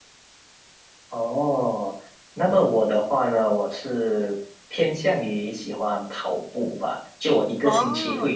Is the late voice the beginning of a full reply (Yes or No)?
No